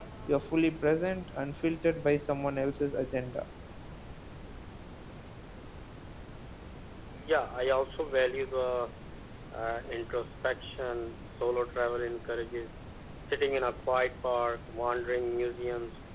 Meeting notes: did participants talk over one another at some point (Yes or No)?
No